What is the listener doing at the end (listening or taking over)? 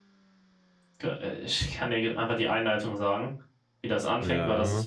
listening